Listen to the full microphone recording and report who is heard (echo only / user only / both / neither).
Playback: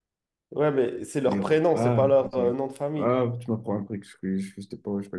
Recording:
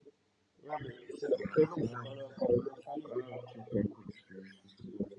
echo only